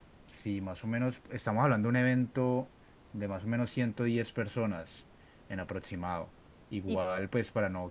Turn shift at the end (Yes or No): No